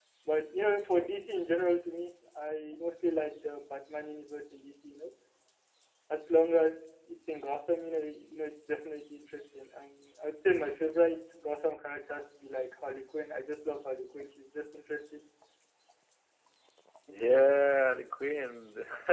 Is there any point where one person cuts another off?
No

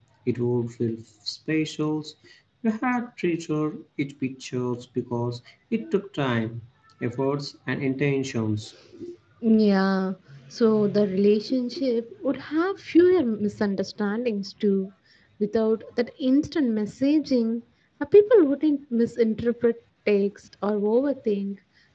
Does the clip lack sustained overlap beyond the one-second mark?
Yes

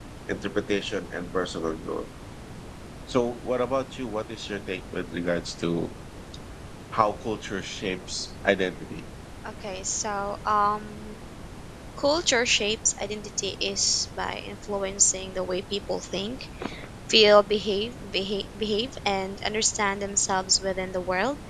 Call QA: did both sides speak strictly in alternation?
Yes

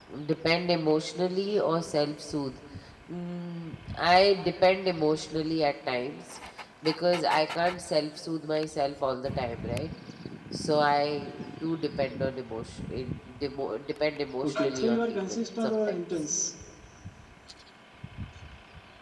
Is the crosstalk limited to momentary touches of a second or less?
No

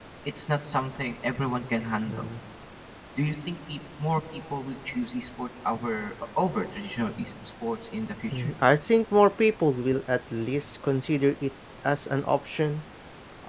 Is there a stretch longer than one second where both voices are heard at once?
No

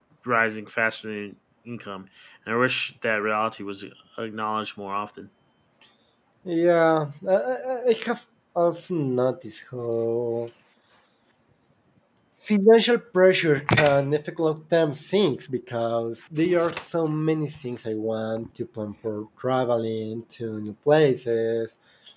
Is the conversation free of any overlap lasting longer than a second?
Yes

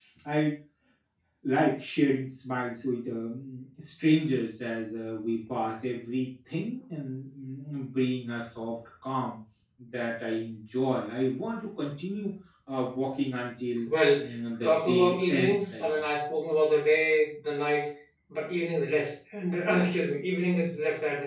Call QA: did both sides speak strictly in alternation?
No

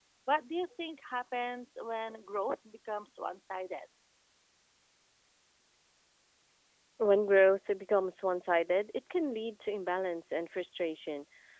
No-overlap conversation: Yes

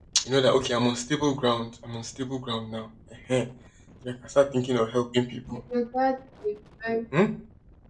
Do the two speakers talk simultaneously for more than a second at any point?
No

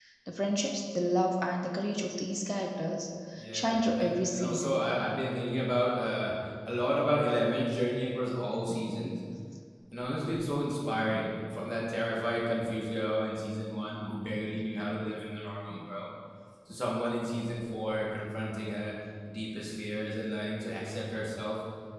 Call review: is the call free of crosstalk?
No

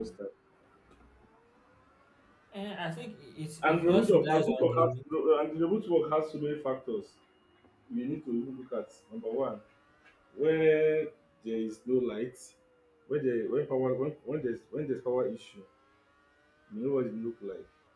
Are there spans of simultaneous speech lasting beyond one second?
Yes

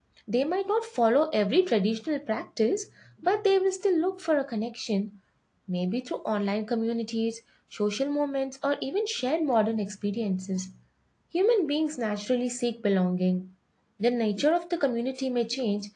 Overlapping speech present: No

